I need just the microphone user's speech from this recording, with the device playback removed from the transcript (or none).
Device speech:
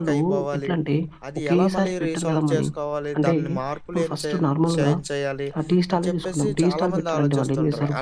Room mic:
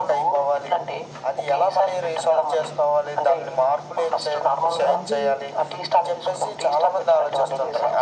కొంతమంది